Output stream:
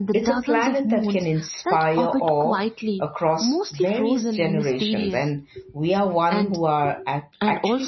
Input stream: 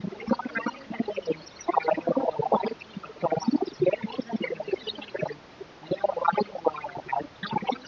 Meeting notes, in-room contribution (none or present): none